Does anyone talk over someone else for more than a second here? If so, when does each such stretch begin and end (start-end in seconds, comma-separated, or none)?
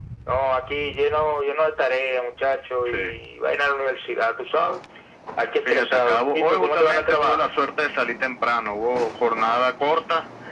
5.6-7.5